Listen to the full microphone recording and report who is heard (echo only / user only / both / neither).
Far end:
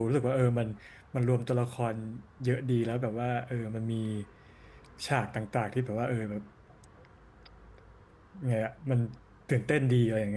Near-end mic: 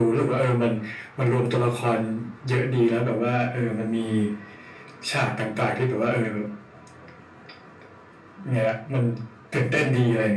echo only